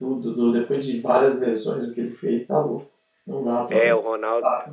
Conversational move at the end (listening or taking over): taking over